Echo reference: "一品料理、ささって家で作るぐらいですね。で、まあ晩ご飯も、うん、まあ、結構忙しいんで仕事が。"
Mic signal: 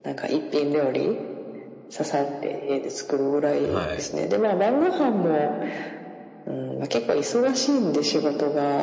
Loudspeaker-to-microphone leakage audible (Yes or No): Yes